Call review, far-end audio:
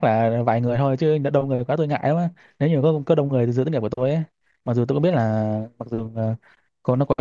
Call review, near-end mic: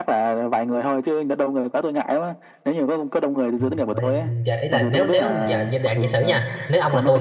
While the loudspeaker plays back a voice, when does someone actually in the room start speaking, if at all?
3.6 s

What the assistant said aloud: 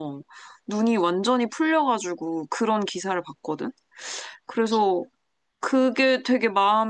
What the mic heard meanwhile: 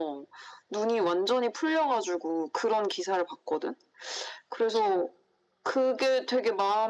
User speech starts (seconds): none

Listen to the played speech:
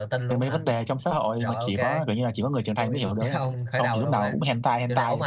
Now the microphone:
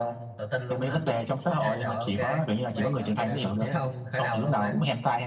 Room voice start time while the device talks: 1.4 s

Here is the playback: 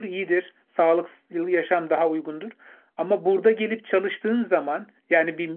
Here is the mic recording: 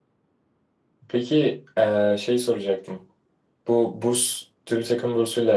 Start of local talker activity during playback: 1.1 s

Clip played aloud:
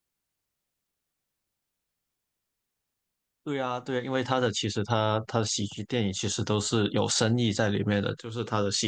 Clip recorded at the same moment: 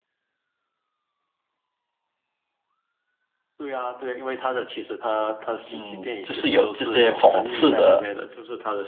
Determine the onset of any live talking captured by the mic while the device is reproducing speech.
5.7 s

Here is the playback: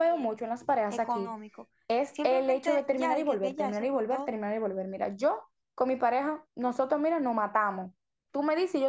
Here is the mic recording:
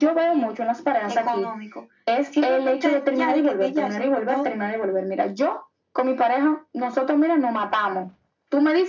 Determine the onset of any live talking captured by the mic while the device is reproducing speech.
none

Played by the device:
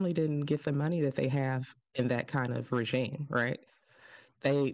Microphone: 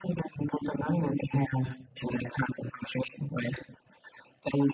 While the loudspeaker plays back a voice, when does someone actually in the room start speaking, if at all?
none

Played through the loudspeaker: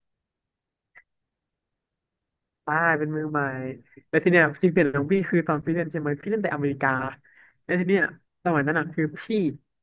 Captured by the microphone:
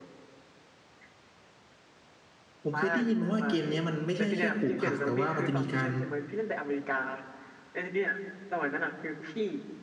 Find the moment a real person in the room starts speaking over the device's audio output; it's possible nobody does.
2.6 s

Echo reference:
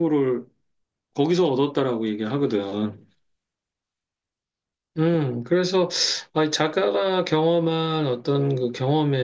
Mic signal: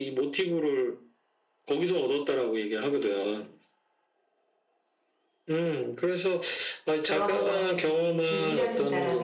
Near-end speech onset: 7.1 s

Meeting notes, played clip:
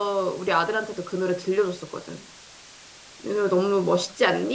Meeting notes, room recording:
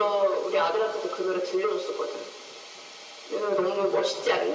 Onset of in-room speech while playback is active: none

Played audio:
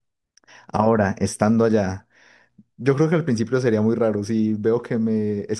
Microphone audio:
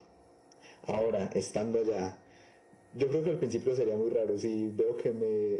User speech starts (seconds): none

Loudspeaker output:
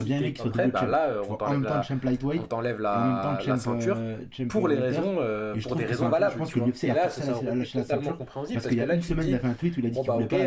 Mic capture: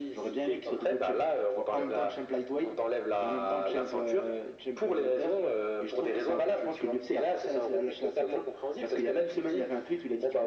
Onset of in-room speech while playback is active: none

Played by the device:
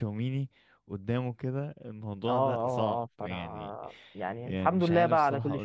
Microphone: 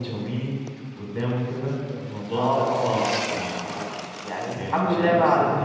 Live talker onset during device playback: none

